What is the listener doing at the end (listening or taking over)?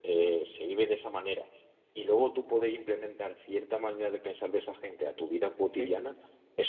listening